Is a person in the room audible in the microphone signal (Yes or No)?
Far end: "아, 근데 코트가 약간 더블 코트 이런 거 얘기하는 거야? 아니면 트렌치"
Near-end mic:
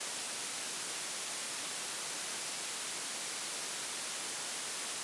No